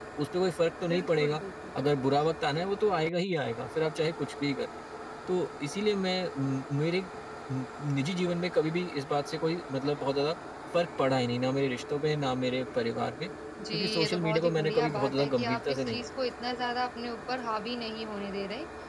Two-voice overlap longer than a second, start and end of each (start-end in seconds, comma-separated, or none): 13.7-16.1